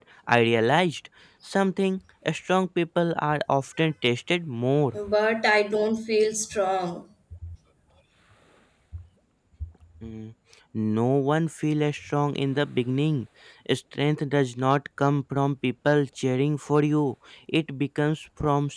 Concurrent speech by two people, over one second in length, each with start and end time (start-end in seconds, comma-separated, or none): none